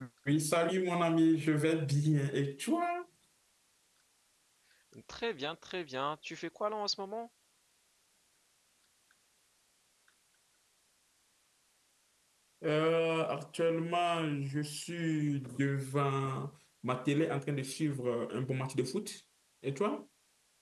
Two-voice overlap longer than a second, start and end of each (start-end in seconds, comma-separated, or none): none